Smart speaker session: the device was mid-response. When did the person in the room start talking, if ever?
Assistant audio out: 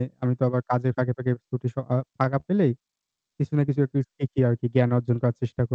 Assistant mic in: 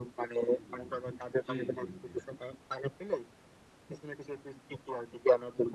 0 s

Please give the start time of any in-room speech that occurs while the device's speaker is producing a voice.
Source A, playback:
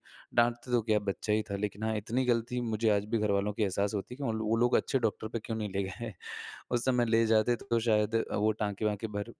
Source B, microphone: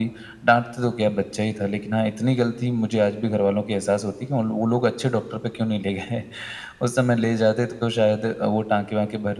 none

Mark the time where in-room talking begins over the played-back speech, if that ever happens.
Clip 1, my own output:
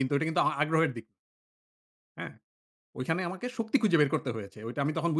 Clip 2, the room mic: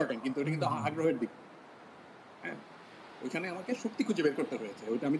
0 s

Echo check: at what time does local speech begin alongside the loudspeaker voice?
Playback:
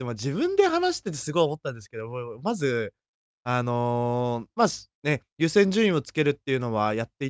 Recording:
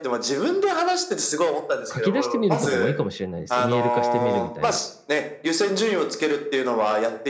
2 s

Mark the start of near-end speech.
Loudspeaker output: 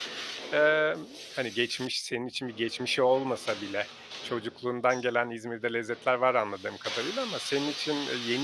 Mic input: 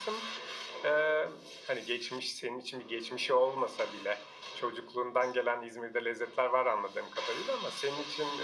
none

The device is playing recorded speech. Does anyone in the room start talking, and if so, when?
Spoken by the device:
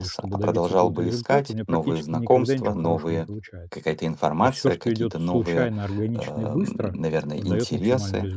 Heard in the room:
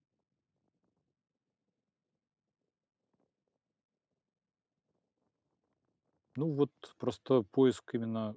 6 s

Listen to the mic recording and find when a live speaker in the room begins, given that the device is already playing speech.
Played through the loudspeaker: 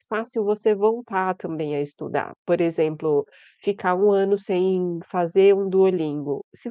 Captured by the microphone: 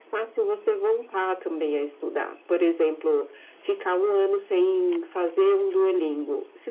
none

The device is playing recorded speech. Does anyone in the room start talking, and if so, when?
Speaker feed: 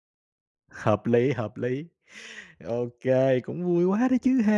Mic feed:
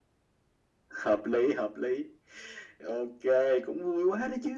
none

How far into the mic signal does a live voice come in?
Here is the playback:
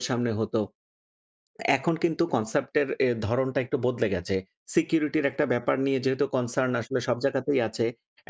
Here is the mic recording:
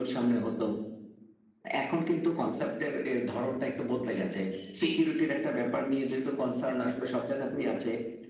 5 s

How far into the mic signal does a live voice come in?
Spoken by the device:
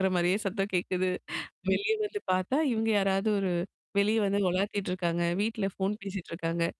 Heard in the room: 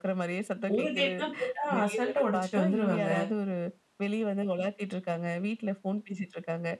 1 s

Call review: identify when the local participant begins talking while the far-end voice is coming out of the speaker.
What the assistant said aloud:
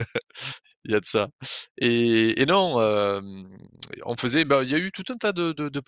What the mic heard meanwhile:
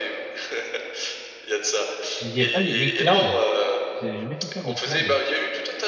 2 s

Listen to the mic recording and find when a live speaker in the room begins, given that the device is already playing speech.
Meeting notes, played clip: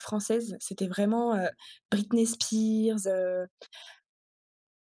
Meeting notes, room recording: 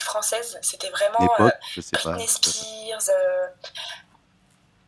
1 s

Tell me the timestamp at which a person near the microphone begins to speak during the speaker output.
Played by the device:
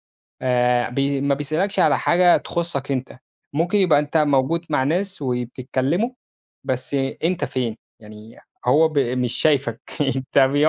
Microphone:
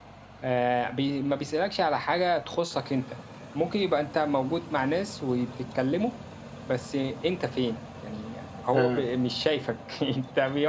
9 s

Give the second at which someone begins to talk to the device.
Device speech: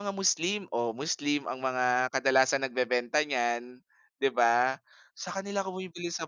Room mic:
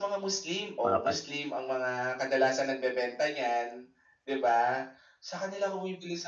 1 s

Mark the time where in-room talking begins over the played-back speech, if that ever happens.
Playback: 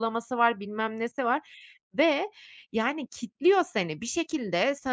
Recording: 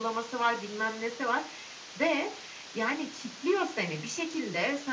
none

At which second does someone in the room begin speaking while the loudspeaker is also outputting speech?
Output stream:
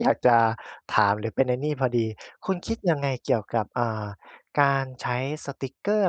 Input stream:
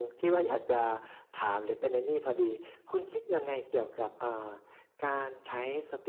none

